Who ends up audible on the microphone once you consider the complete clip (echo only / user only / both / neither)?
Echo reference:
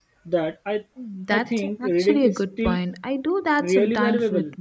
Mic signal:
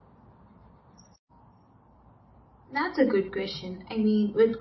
user only